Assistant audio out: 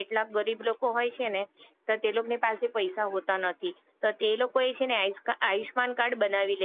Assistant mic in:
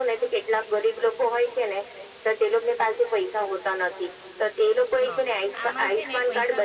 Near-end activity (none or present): present